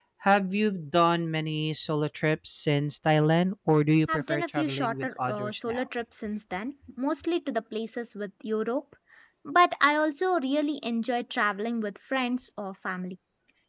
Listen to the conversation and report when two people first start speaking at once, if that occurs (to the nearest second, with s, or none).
4 s